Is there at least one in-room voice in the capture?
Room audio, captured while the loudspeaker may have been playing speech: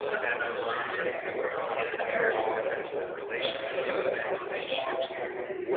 Yes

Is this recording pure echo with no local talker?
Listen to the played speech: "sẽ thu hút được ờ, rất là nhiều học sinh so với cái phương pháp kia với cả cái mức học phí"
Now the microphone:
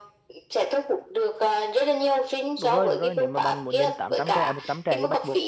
No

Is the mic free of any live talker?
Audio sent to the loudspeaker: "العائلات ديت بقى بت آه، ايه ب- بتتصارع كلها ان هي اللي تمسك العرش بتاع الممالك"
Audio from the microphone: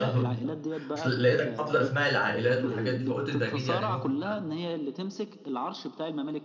No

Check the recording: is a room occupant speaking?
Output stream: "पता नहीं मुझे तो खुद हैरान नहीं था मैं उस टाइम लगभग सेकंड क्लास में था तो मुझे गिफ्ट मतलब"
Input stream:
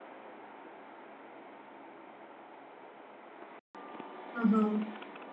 Yes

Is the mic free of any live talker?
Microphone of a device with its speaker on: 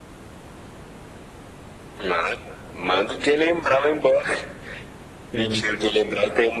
No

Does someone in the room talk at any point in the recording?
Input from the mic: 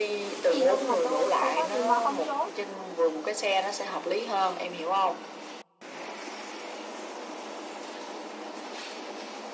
Yes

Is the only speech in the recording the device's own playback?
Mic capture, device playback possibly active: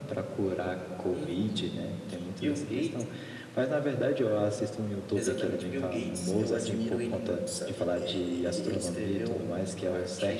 Yes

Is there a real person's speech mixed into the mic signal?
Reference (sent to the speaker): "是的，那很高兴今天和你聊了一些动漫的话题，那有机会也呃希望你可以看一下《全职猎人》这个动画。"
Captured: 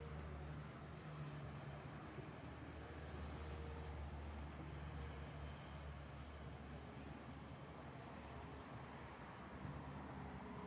No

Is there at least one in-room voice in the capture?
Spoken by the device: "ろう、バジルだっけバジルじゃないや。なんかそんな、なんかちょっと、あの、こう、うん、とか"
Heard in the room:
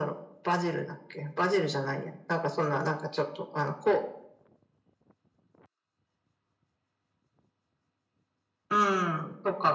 No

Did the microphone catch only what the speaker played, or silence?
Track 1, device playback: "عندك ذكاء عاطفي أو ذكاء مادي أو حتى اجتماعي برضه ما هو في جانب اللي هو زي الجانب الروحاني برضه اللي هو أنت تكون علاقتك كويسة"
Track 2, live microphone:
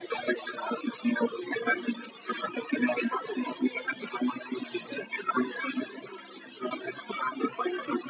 Yes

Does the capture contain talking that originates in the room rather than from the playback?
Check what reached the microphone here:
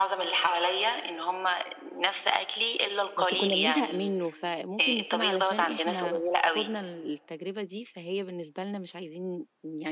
Yes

